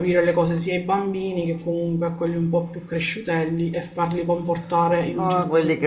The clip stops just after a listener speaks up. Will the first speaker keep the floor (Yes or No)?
No